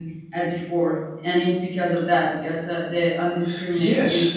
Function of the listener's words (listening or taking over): taking over